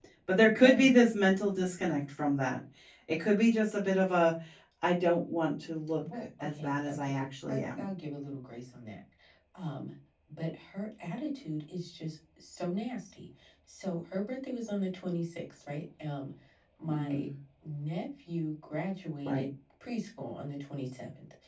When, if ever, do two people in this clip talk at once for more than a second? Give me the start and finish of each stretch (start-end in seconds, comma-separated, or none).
6.0-7.9